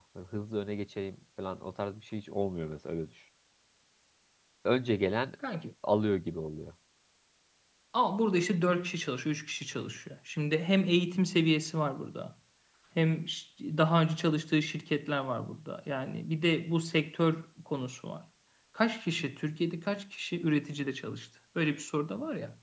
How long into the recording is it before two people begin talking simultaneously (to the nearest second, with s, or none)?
none